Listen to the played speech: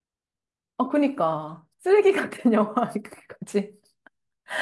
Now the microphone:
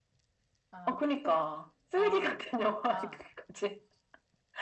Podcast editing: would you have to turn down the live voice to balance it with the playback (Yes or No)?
No